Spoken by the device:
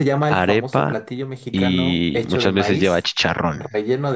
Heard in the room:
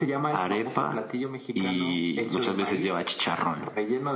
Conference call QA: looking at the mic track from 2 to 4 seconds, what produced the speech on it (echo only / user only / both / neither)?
echo only